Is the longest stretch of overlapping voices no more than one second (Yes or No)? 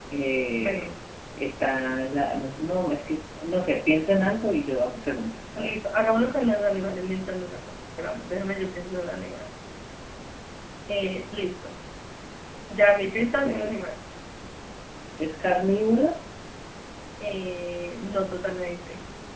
Yes